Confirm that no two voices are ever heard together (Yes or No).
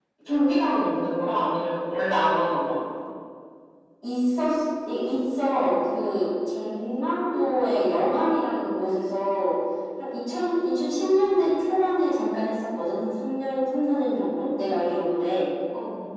Yes